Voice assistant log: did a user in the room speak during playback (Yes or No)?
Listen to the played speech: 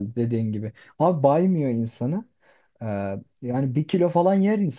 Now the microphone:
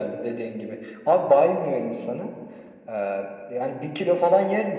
No